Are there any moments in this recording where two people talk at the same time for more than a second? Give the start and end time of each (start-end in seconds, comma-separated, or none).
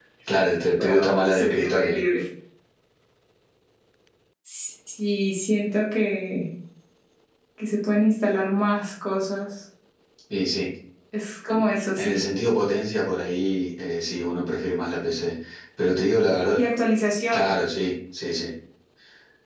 0.8-2.0